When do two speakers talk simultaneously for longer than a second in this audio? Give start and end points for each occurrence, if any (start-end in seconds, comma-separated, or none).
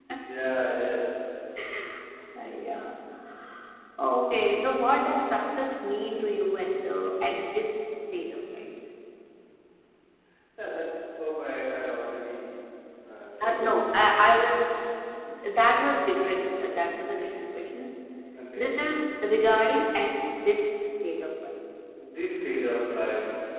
13.4-14.6